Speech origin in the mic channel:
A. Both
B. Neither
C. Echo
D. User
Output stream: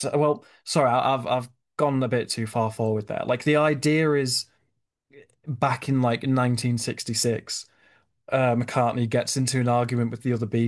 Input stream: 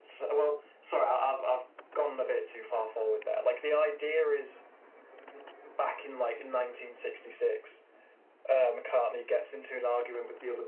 C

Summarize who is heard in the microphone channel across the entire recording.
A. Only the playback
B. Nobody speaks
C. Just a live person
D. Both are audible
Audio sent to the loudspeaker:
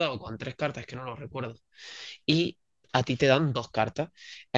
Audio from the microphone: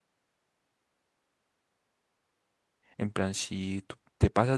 C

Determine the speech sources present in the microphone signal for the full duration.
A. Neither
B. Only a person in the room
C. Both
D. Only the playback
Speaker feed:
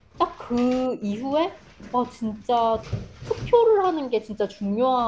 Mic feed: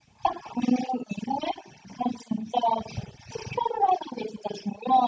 D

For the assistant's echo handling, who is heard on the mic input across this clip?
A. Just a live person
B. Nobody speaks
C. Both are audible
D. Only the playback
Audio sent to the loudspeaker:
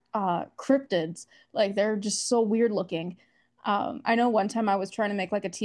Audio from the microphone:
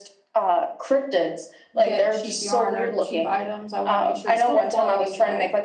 C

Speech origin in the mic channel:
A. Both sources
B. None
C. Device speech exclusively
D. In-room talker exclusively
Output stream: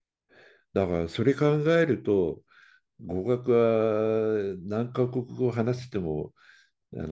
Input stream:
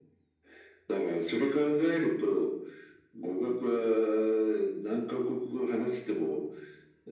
C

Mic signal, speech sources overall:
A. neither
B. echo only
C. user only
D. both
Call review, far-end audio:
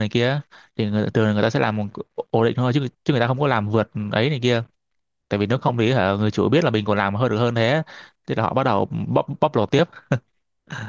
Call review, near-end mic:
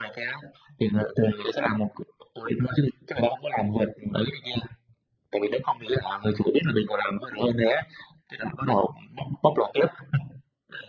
B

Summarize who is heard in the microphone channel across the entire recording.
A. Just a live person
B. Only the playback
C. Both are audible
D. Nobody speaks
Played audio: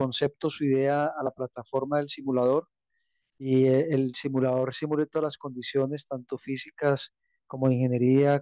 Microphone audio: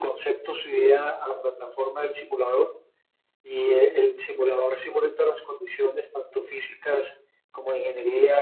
B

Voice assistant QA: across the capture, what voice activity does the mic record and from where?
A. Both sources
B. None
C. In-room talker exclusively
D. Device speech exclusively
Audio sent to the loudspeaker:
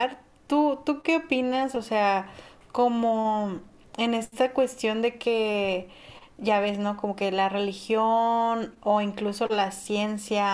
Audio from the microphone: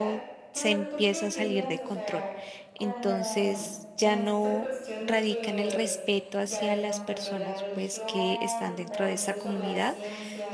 A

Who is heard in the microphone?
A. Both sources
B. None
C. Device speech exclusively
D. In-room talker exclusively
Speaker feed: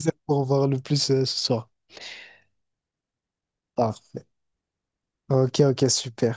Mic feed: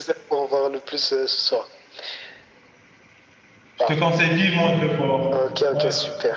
A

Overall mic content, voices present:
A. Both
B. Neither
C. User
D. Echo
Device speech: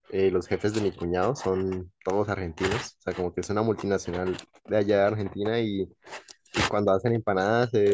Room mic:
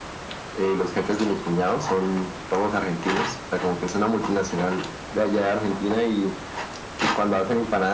D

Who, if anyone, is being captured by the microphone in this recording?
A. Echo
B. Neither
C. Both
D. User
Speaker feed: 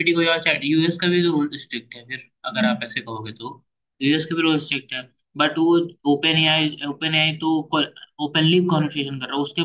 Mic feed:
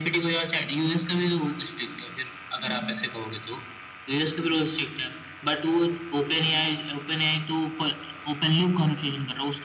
A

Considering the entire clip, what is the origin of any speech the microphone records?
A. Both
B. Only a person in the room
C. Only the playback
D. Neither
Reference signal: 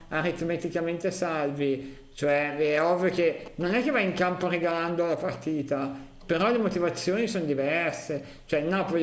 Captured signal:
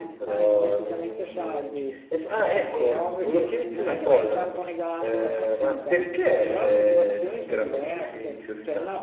A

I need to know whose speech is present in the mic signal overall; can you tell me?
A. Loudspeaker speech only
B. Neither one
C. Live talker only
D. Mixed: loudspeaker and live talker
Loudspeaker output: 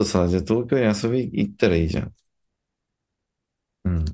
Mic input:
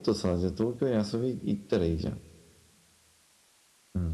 A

